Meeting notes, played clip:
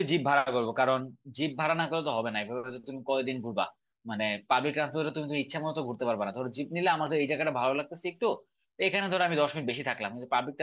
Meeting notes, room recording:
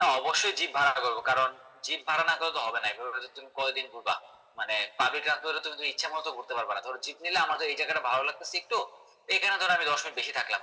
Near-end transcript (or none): none